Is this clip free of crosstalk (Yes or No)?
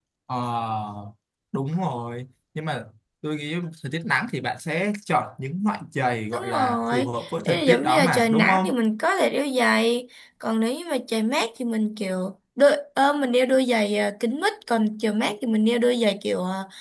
No